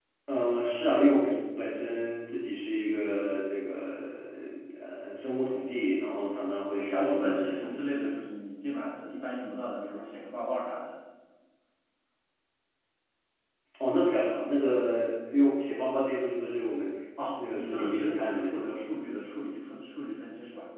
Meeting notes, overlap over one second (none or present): present